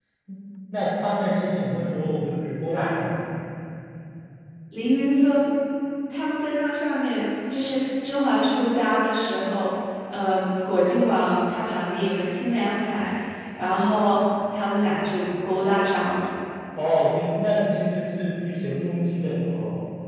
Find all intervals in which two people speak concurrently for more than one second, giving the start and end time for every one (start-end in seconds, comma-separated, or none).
none